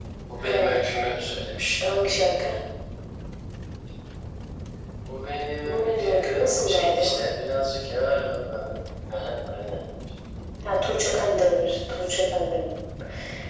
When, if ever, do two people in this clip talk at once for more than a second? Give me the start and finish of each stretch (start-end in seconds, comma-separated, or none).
5.6-7.1